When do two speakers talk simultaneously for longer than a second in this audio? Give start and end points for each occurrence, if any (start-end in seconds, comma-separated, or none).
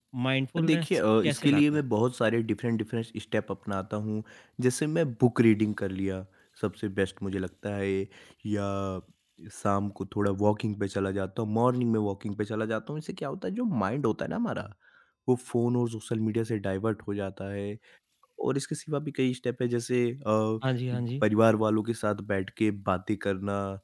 0.6-1.8